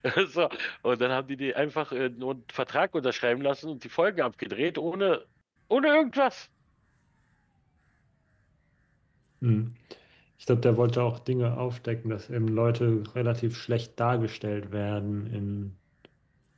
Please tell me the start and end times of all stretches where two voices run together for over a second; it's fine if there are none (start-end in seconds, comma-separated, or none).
none